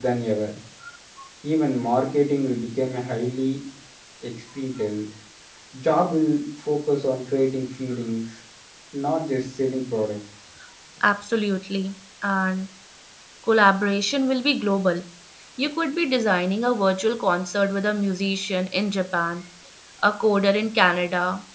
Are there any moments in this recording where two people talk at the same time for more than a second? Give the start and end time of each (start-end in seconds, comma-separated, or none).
none